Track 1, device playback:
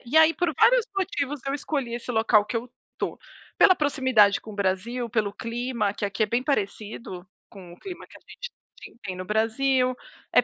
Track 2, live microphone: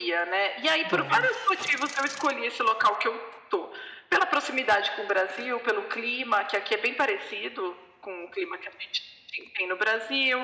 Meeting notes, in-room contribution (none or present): present